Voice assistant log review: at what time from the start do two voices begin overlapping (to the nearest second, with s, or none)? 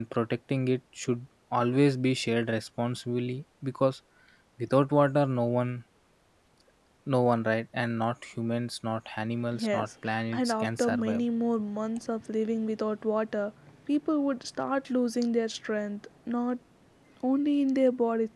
10 s